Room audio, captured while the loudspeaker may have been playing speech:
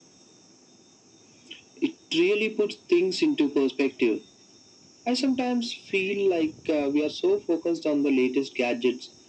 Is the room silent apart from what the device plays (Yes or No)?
Yes